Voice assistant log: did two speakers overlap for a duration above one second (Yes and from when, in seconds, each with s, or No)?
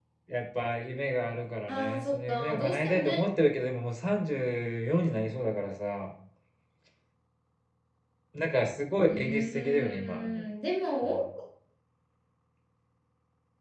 Yes, from 1.7 s